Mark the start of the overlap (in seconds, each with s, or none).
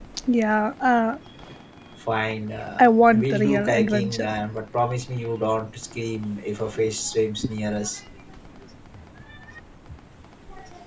2.8 s